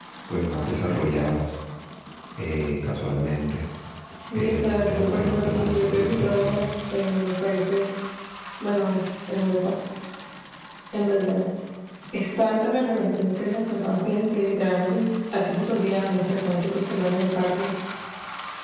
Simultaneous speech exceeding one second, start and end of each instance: 4.3-6.6

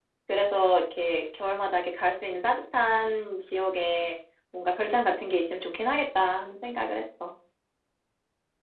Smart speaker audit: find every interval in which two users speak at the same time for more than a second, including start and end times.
none

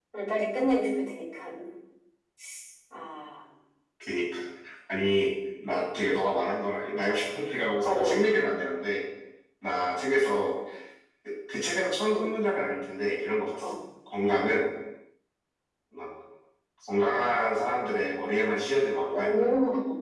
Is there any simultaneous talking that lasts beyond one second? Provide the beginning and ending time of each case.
none

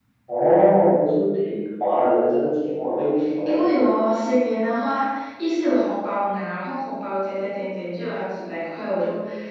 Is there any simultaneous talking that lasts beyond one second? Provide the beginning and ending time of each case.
none

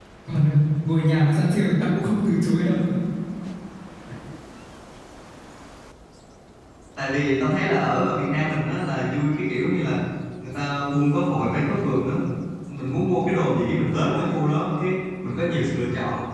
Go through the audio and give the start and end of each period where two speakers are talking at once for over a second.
none

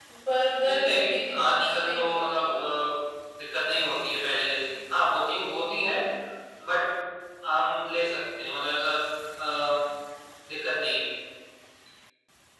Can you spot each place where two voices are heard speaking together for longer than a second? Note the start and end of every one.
0.6-2.4

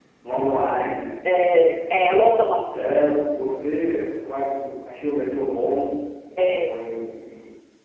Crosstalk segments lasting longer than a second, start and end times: none

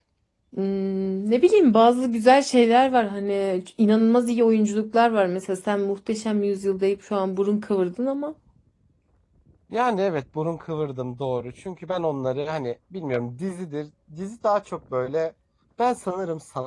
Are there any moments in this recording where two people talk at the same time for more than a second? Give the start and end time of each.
none

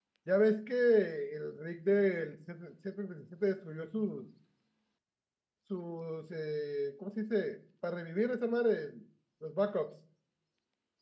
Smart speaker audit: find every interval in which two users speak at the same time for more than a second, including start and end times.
none

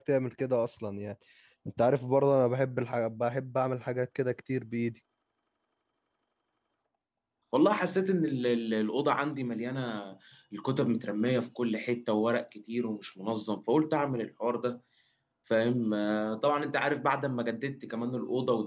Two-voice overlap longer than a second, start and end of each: none

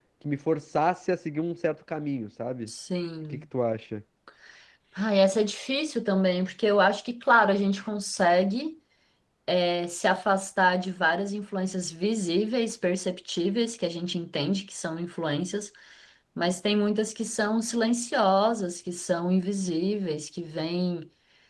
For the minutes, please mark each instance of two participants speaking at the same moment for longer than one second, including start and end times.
none

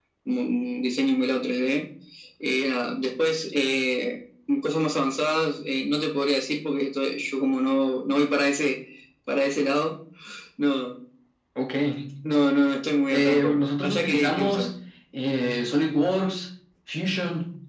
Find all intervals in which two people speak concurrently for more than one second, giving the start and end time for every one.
13.1-14.7

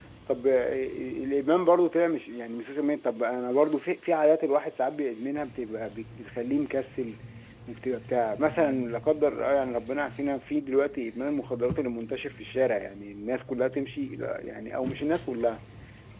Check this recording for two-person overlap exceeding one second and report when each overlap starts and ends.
none

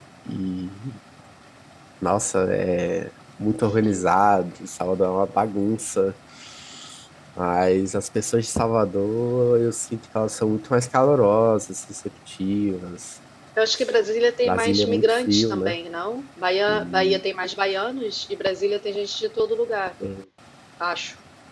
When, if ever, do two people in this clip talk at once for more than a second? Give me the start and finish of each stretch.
14.4-15.8

